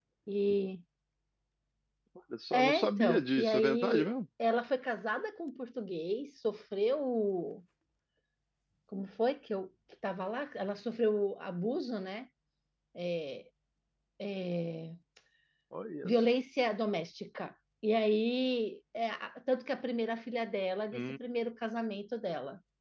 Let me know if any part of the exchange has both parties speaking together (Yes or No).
Yes